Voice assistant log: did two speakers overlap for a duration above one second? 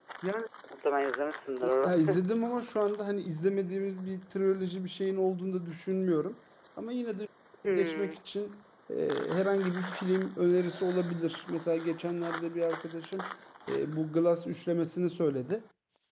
No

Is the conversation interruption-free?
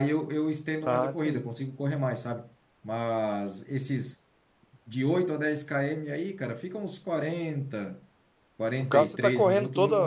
No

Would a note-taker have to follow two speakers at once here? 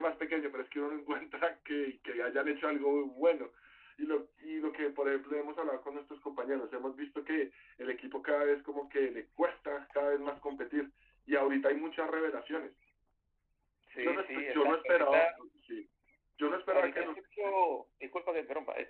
Yes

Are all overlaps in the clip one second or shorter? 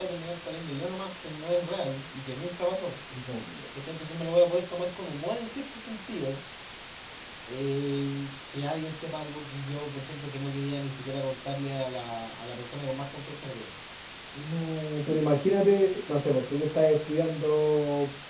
Yes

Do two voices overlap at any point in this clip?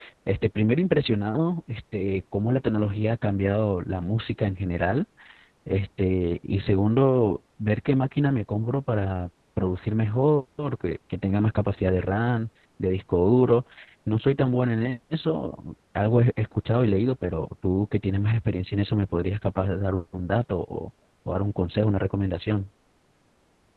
No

